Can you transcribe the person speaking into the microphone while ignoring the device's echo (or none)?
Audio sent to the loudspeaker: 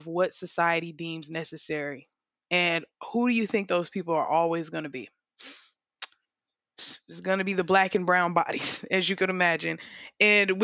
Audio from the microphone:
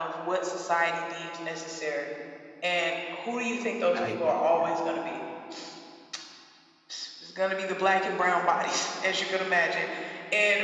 i got yeah